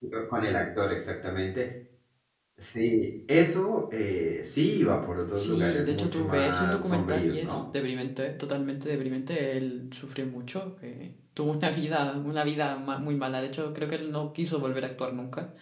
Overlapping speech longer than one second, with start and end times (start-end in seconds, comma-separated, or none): 5.3-7.6